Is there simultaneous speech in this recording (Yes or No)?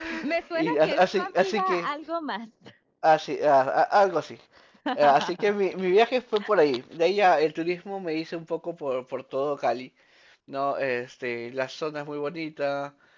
Yes